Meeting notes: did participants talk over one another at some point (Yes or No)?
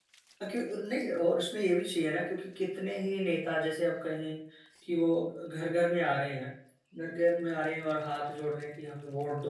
No